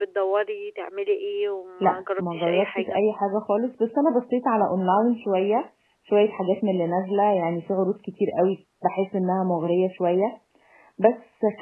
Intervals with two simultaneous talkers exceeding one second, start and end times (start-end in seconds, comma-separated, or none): 1.8-3.0